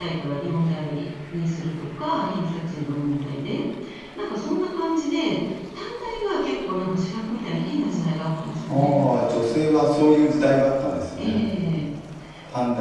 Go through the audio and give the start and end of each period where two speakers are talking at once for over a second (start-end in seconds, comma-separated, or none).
none